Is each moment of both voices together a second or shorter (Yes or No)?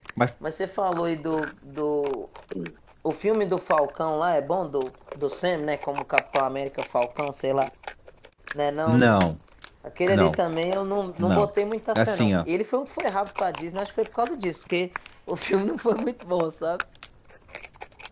Yes